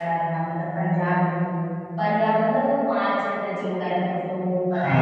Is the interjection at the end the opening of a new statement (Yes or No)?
Yes